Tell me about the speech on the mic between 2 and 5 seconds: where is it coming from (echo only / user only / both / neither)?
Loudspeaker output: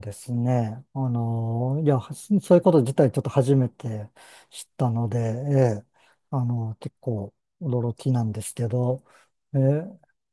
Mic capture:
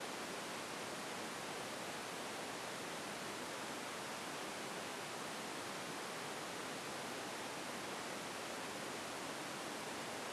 neither